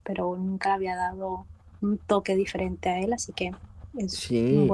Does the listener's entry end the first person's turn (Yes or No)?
Yes